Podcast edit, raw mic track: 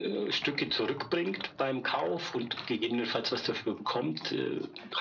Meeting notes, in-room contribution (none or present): none